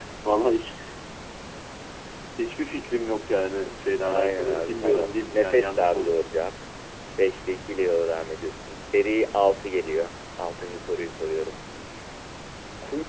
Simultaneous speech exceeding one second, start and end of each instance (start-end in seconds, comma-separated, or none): 4.1-6.3